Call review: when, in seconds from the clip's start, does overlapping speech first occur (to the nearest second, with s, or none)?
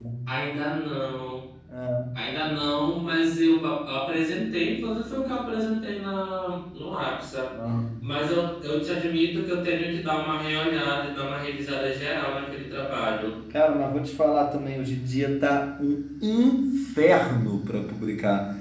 none